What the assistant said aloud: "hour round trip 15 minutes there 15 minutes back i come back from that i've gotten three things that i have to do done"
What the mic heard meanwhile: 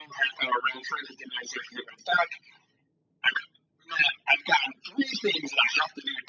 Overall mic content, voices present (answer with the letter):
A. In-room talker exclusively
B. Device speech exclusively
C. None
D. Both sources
B